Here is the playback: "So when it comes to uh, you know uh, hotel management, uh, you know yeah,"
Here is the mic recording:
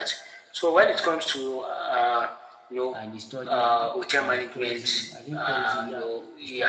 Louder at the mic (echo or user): echo